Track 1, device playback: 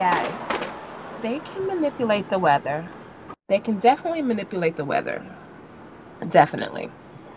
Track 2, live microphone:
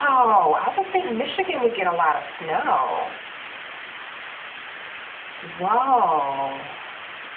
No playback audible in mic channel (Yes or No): Yes